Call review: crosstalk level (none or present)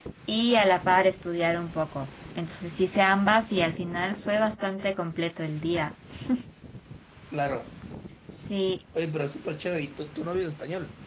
none